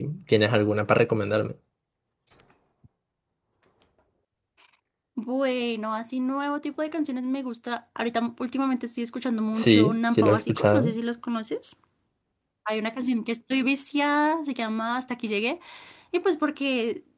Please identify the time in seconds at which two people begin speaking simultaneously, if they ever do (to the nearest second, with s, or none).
10 s